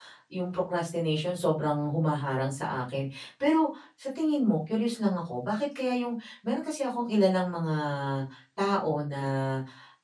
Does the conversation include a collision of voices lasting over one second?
No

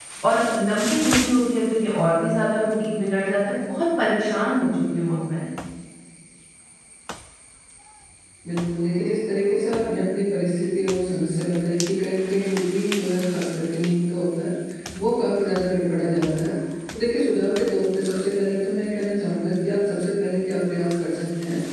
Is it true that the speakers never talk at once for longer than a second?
Yes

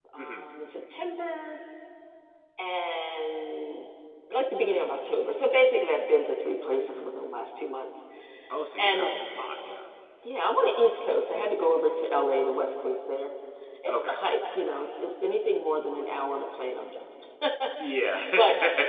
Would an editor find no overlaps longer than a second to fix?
Yes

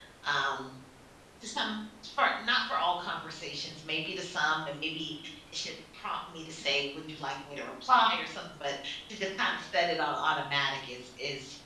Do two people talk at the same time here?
No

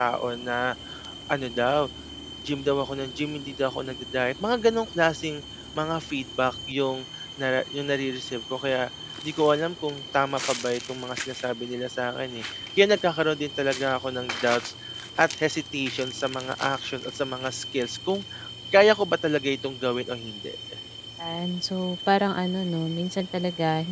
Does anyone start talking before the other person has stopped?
No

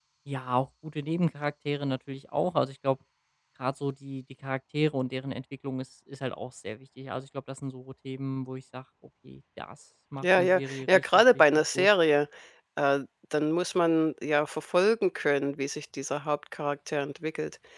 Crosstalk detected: Yes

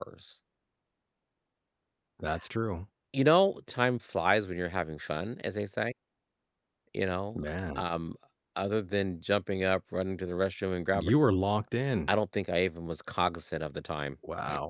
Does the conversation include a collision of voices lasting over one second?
No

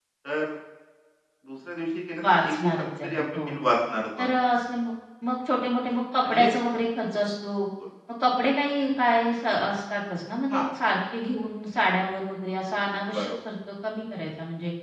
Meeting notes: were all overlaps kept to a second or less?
No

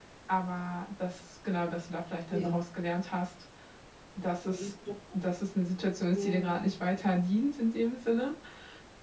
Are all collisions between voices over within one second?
Yes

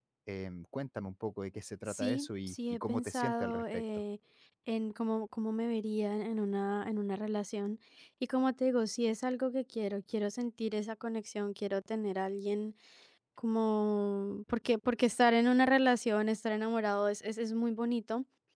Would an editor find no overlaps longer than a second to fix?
No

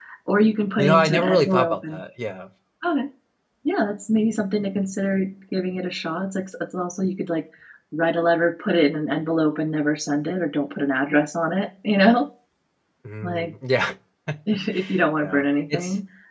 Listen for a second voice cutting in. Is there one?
Yes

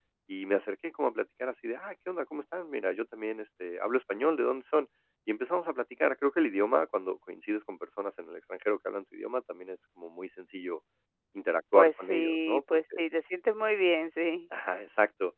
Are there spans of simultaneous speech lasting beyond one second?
Yes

